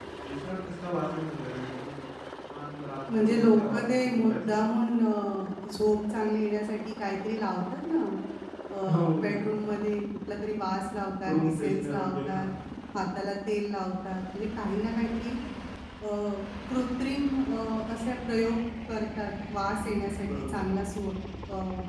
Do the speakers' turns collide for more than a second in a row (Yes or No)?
Yes